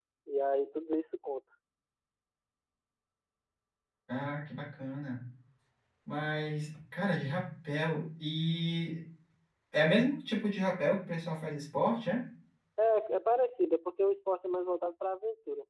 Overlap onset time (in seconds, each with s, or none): none